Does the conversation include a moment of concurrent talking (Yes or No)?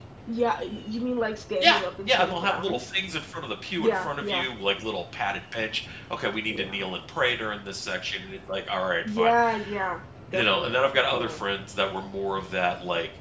Yes